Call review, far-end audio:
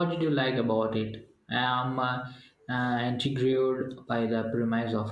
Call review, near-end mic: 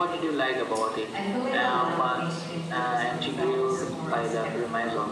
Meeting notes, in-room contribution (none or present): present